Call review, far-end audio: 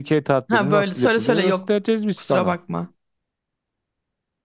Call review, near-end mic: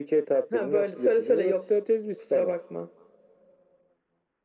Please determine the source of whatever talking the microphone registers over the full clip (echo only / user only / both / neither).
echo only